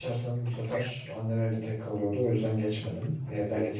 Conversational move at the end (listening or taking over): listening